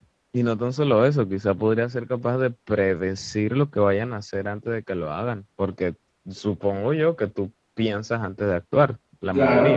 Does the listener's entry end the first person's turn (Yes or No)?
Yes